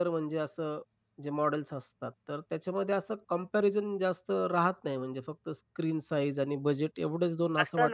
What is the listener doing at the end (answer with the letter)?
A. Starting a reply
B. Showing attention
A